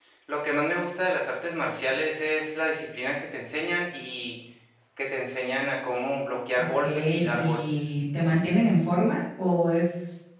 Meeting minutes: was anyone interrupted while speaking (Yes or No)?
Yes